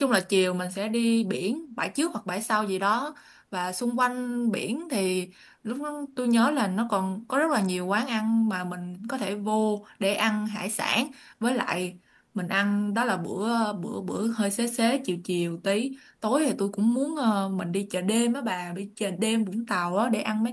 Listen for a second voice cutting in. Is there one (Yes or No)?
No